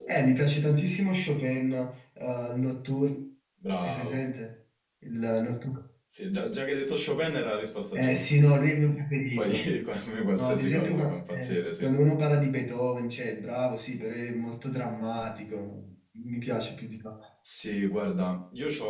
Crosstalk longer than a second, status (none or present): present